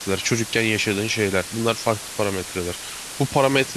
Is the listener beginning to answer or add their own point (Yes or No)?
No